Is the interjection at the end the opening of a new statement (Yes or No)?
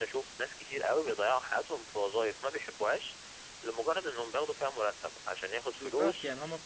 Yes